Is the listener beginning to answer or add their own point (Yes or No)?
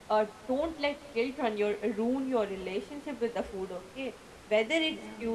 No